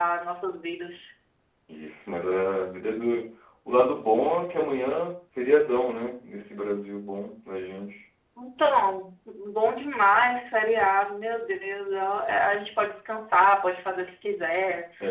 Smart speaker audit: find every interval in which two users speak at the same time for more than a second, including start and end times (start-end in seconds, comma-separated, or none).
none